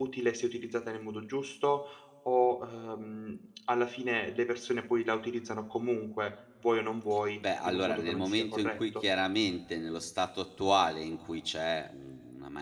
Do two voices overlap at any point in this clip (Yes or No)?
Yes